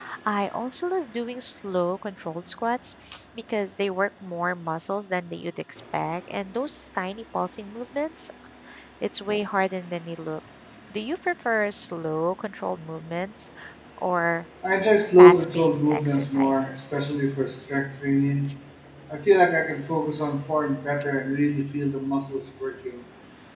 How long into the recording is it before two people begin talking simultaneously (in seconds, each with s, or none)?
15.2 s